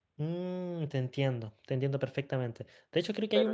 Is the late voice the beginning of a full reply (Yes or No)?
No